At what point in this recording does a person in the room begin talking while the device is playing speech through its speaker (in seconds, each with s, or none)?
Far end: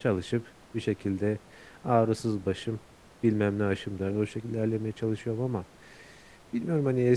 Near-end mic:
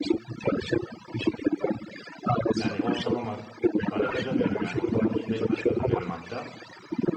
2.6 s